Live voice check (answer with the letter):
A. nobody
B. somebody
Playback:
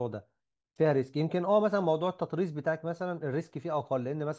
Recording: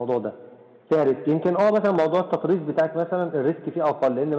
A